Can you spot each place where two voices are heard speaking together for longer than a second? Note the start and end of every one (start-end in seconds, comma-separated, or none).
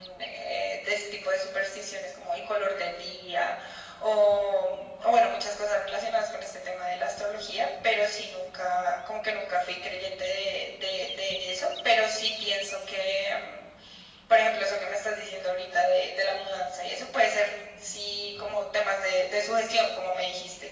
none